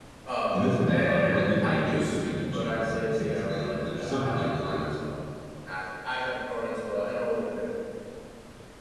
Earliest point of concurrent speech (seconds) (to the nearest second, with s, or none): 1 s